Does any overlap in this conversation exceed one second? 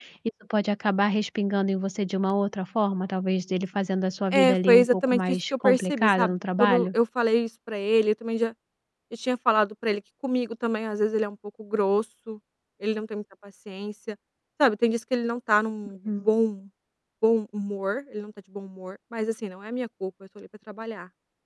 Yes, from 4.3 s

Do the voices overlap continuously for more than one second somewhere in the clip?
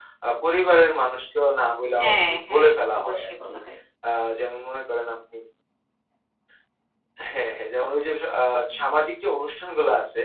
Yes, from 2.0 s

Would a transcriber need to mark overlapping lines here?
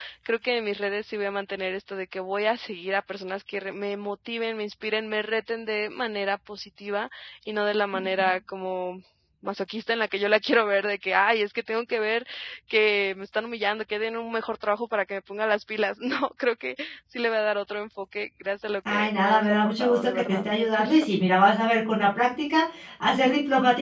Yes, from 18.8 s

